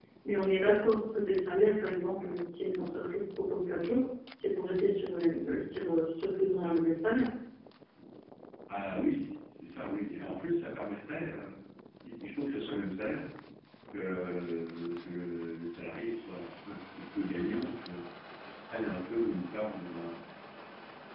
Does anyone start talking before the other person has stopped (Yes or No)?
No